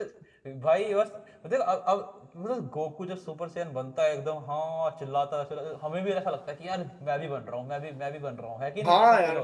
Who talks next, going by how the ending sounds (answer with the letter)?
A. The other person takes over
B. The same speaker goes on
A